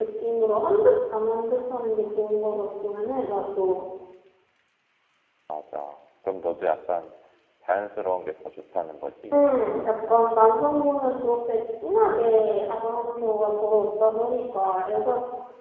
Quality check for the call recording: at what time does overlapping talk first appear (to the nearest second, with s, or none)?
none